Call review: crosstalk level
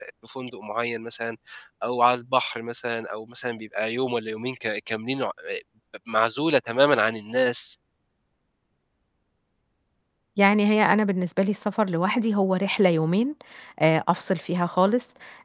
none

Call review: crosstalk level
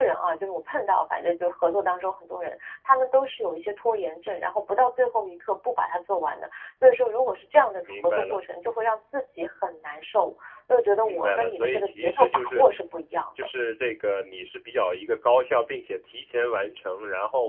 present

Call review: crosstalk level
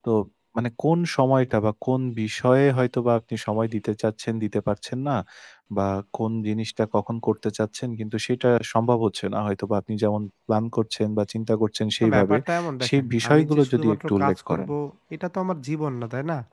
present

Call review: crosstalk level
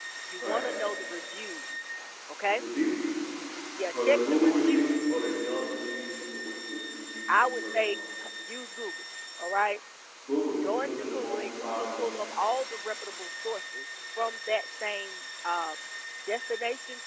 present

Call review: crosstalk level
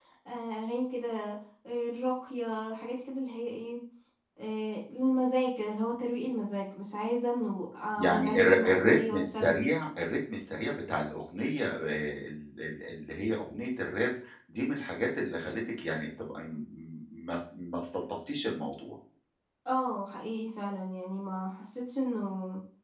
present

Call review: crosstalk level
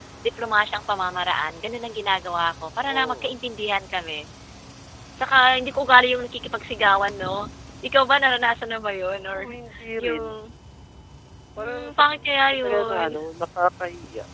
present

